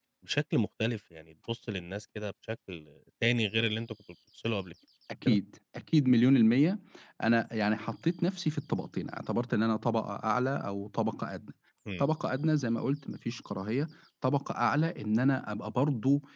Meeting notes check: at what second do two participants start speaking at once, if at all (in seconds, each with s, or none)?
none